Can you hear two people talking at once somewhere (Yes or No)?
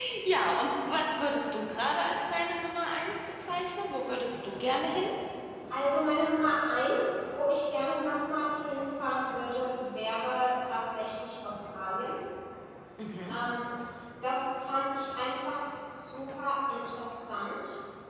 No